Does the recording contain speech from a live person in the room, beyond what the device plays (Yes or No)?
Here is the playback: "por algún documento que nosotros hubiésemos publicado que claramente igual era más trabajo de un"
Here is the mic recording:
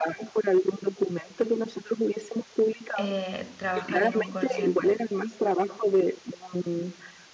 Yes